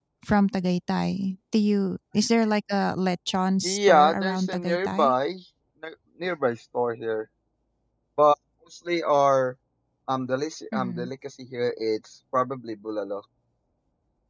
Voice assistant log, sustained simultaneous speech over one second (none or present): present